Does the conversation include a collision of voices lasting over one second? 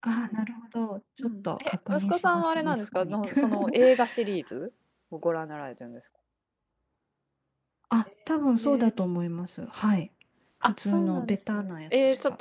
Yes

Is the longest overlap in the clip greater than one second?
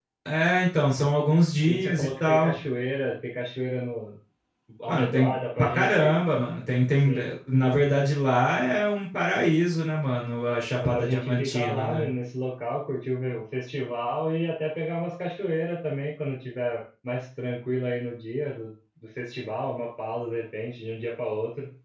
Yes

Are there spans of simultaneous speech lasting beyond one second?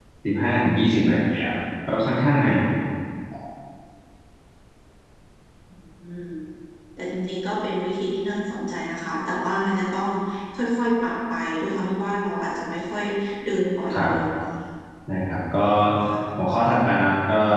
No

